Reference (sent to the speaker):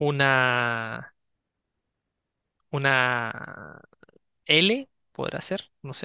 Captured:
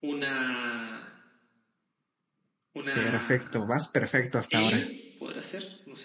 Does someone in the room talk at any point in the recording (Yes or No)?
Yes